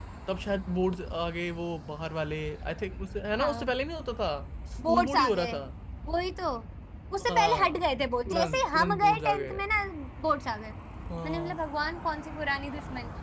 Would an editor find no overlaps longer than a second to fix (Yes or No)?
No